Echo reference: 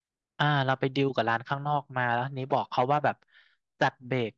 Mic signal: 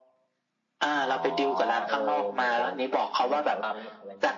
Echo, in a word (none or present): present